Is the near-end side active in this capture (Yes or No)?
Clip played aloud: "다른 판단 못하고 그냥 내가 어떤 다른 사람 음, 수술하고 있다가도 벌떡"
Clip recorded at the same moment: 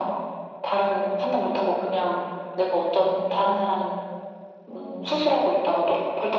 No